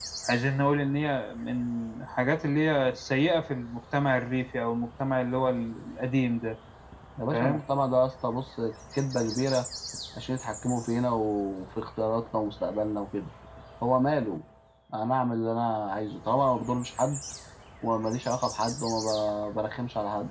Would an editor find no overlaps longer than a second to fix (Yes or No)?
Yes